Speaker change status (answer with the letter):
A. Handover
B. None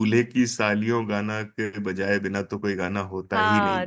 A